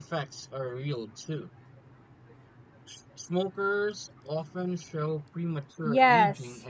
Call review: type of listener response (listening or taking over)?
taking over